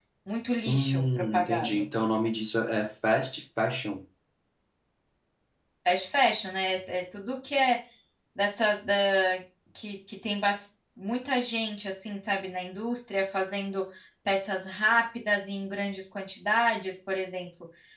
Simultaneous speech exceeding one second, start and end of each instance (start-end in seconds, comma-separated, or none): 0.6-1.9